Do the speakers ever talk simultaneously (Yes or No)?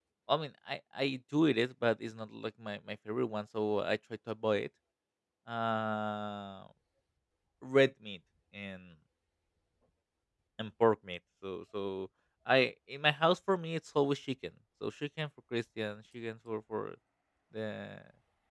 No